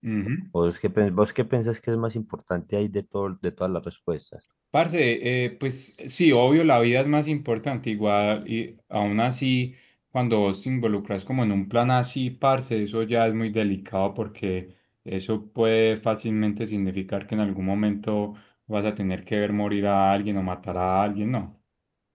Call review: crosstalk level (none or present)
none